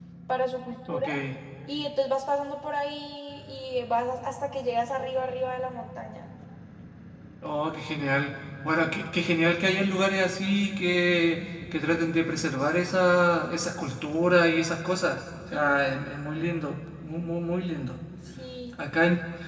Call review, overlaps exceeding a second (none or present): none